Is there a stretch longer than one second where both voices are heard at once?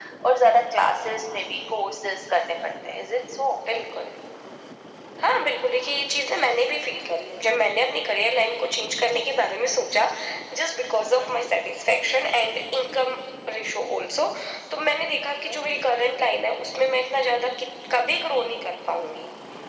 No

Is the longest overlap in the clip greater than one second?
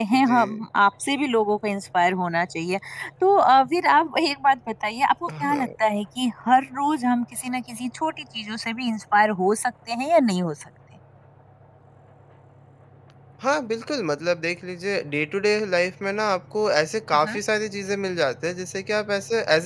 No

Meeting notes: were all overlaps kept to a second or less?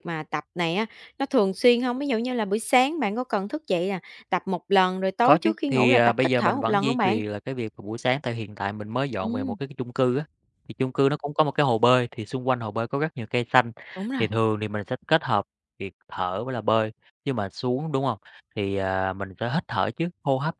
No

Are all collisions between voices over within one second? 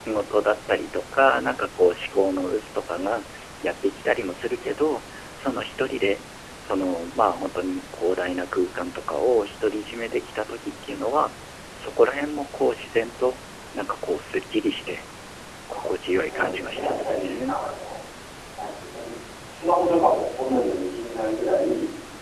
No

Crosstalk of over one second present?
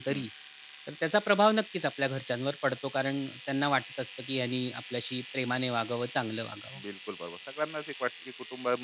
No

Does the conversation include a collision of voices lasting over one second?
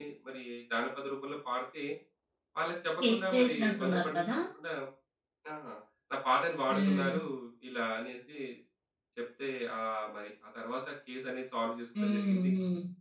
Yes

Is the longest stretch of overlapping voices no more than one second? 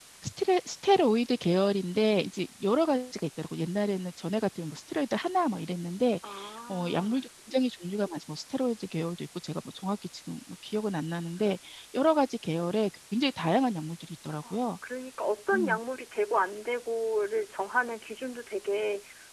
Yes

